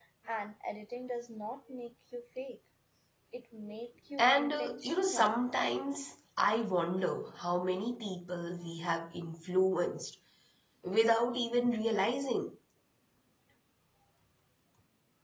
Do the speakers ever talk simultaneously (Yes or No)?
Yes